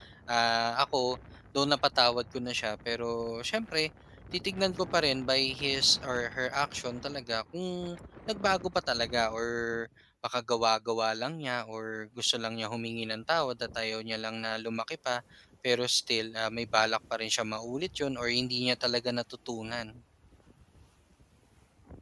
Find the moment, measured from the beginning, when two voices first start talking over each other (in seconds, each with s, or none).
none